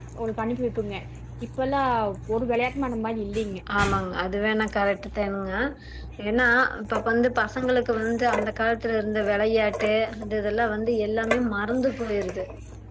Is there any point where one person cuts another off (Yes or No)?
No